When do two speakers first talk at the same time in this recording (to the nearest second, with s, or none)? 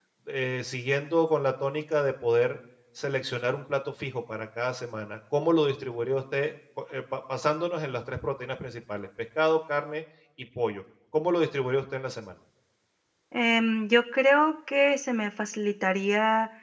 none